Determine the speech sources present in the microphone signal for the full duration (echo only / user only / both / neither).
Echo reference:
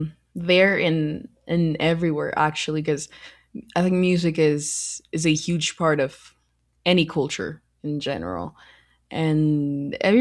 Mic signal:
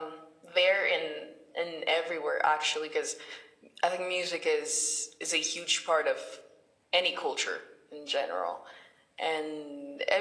echo only